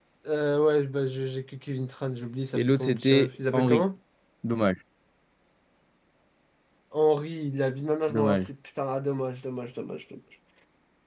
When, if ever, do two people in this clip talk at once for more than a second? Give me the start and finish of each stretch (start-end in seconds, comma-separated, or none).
2.5-3.8